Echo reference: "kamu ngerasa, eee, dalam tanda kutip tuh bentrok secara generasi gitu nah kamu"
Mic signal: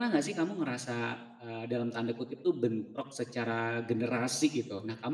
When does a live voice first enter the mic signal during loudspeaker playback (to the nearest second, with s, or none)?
none